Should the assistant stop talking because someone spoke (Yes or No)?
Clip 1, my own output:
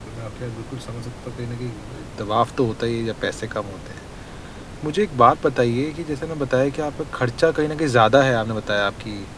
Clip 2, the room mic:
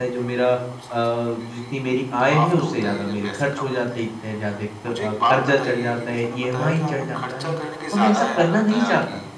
Yes